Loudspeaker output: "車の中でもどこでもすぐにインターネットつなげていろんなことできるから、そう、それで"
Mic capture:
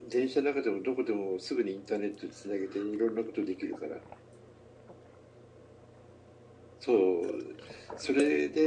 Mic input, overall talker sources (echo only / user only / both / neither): echo only